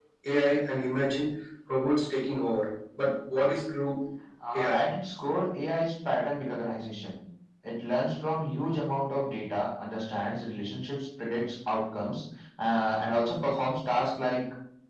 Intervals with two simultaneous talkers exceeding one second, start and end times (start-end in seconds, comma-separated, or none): none